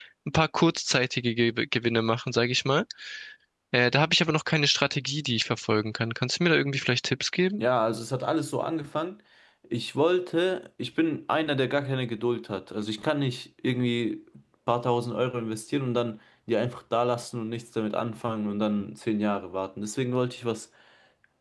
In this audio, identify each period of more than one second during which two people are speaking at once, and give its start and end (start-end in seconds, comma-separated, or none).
none